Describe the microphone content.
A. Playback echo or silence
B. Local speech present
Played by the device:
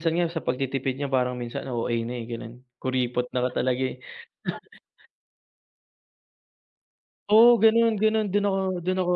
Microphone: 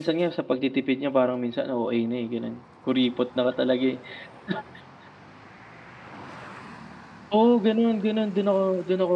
A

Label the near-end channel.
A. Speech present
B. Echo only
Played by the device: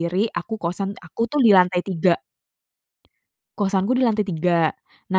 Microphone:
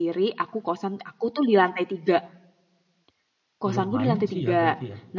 A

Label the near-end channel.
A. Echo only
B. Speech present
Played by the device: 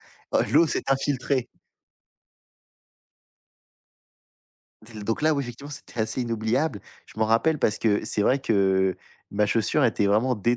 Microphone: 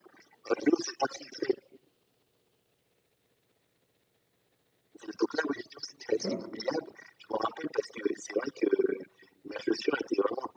B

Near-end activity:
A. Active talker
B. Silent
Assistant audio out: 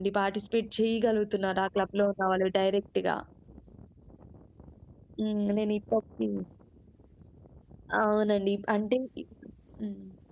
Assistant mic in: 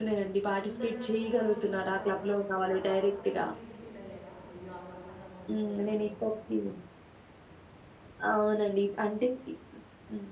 A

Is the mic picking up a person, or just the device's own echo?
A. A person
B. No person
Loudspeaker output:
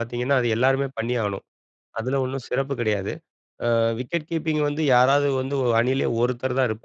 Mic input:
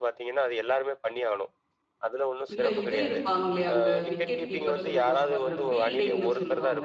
A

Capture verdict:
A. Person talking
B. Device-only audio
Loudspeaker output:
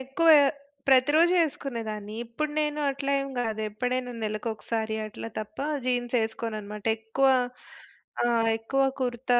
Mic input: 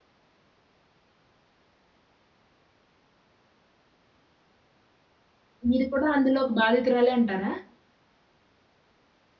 A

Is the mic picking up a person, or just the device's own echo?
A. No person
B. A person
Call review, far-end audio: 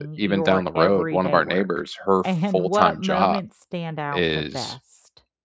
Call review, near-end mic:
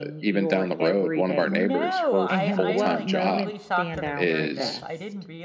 B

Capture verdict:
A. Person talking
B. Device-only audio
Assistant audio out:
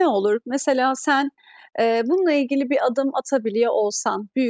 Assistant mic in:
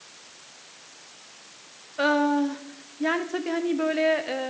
A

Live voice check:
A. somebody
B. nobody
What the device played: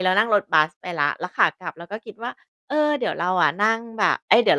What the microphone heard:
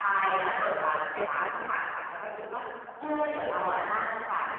A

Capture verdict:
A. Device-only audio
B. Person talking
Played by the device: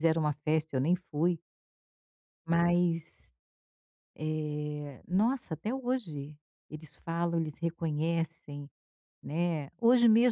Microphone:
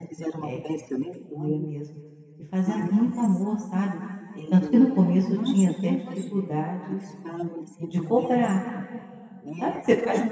B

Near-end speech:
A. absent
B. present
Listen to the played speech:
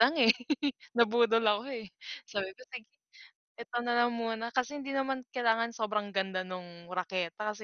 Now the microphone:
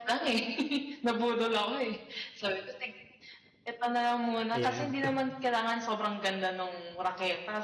B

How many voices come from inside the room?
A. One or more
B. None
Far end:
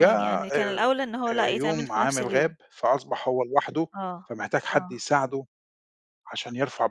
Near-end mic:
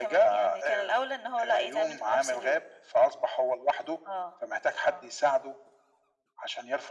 B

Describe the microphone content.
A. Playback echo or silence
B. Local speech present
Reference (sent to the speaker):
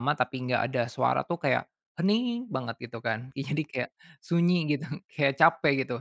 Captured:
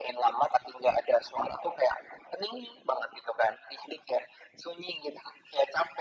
A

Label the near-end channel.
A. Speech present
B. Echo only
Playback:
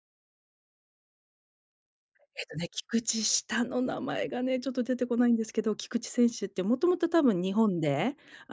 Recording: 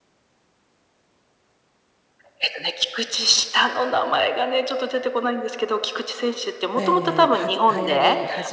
A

